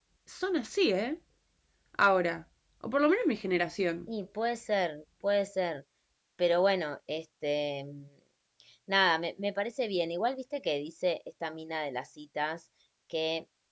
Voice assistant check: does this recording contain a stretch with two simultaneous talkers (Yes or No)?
No